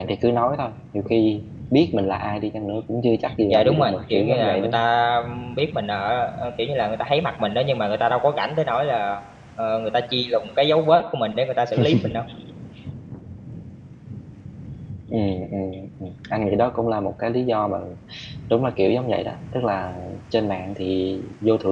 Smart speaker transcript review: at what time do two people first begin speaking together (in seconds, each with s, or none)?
3.5 s